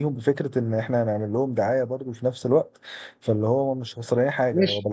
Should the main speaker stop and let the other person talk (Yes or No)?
Yes